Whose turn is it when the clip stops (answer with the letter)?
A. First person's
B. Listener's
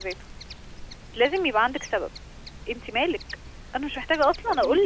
B